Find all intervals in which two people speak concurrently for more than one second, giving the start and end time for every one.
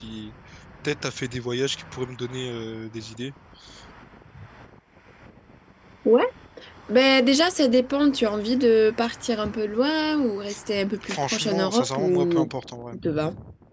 11.0-12.5

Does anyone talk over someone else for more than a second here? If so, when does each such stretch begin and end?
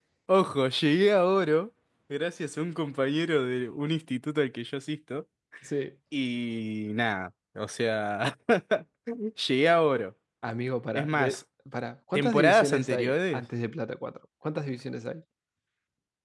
12.1-13.4

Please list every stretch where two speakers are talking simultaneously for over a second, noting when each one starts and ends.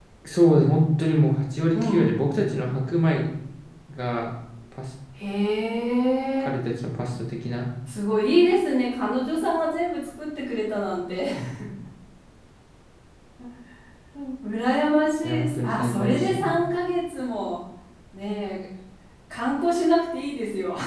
15.2-16.6

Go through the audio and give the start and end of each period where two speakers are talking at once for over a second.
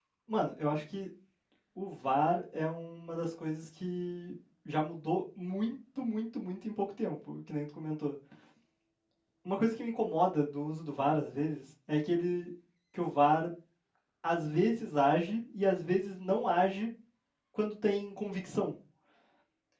none

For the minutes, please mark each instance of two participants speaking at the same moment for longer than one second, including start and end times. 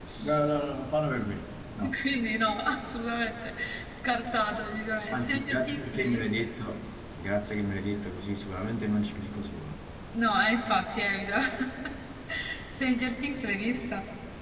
5.1-6.4

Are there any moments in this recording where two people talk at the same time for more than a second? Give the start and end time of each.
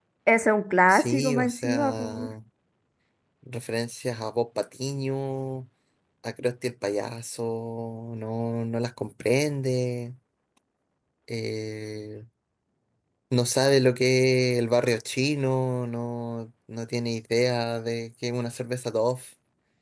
0.9-2.3

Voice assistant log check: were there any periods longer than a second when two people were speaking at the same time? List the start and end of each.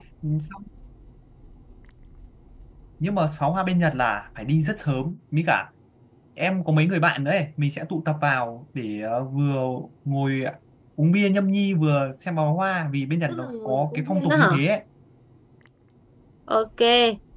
13.3-14.5

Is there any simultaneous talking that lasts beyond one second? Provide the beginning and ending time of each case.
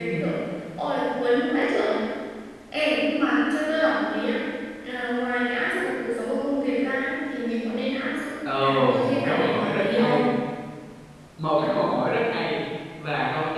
8.6-10.2

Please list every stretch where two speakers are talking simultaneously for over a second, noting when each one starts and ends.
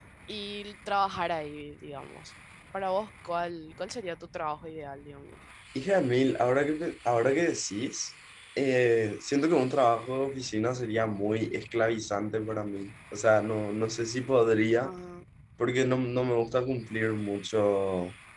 none

